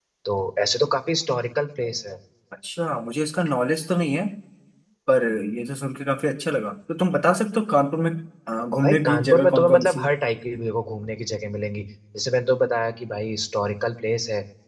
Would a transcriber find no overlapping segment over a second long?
No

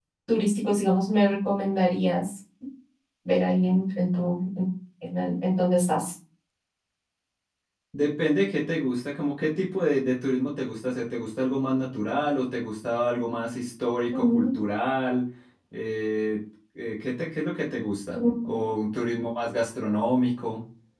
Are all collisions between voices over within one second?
Yes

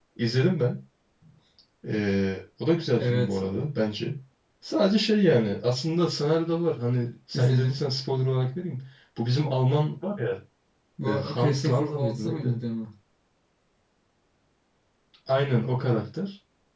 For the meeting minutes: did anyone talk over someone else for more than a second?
Yes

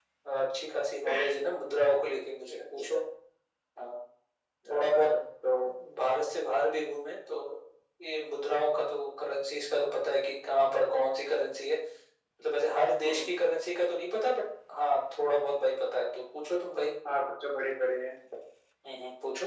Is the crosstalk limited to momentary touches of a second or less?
Yes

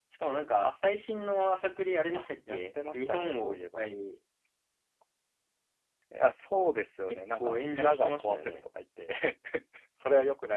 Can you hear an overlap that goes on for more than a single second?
Yes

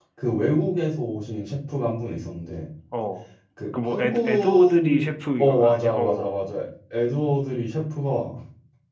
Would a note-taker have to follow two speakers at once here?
Yes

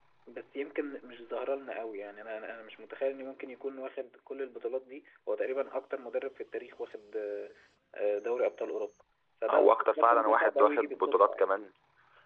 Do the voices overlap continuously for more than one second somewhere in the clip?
Yes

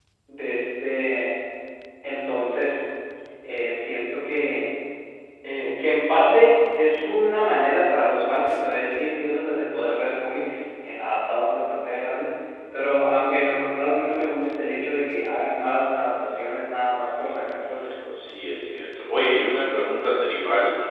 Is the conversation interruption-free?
Yes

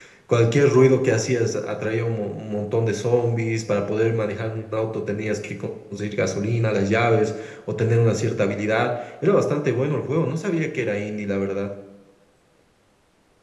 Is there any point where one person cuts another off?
No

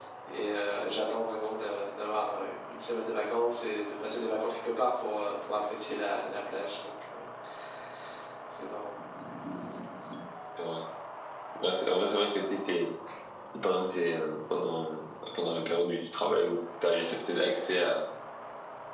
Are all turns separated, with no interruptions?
Yes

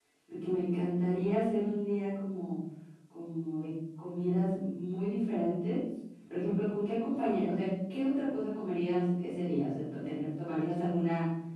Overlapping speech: No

